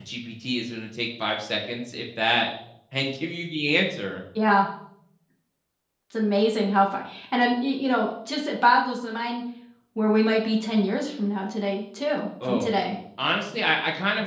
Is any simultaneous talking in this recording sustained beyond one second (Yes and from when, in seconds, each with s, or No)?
No